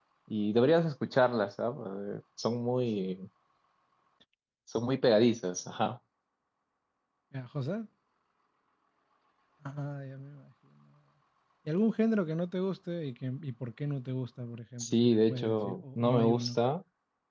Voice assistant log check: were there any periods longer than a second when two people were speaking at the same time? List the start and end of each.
14.8-16.6

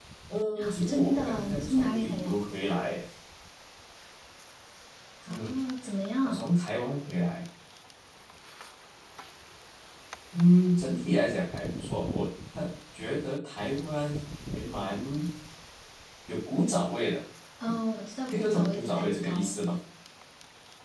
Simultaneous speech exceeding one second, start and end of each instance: 0.9-2.4, 18.3-19.5

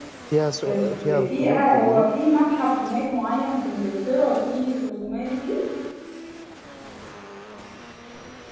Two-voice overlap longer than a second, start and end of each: 0.7-2.0

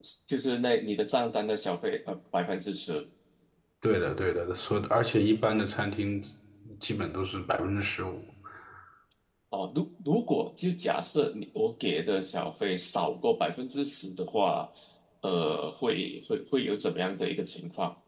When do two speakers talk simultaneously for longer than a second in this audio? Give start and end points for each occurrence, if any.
none

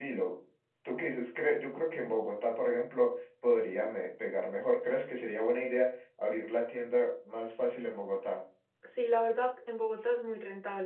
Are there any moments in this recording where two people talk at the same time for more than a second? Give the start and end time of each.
none

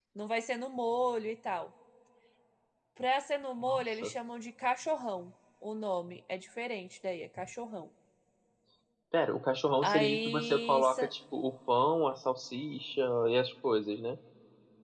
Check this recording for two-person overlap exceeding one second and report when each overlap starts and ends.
9.8-11.1

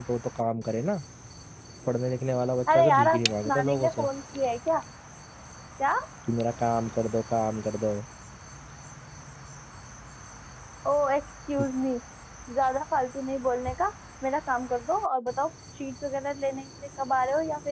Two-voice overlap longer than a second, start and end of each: 2.7-4.0

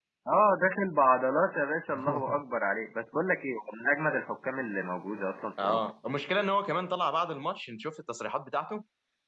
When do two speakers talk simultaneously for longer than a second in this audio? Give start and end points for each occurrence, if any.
none

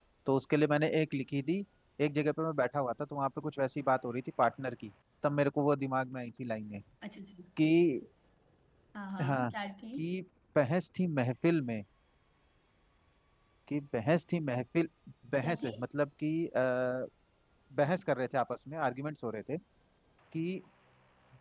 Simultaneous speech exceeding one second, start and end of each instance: none

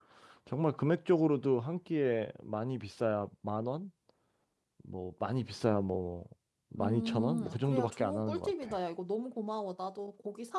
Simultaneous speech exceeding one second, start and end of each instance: 6.8-8.8

